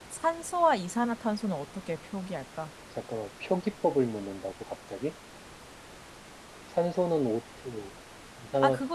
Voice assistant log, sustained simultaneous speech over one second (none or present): none